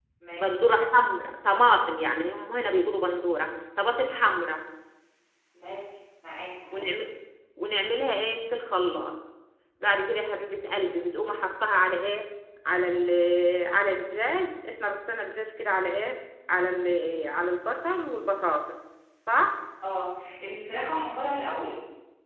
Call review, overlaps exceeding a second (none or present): none